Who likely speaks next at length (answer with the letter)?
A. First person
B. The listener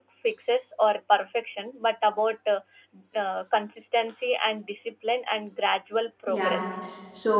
B